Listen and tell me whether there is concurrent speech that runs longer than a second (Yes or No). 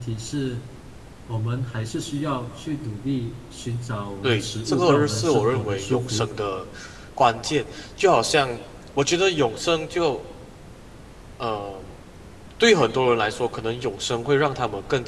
Yes